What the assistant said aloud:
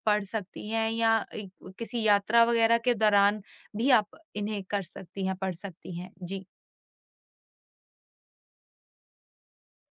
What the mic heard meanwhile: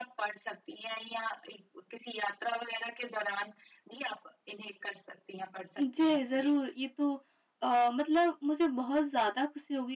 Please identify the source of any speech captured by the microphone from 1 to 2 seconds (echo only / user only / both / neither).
echo only